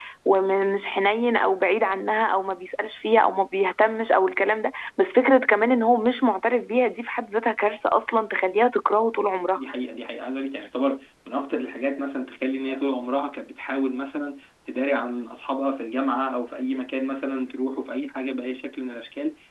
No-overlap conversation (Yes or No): Yes